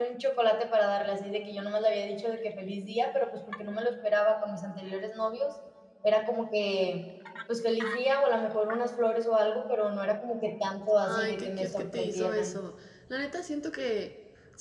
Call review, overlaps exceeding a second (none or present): present